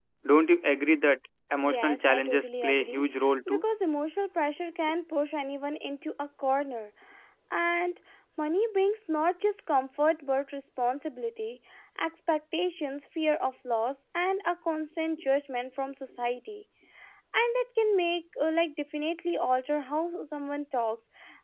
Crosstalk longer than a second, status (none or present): present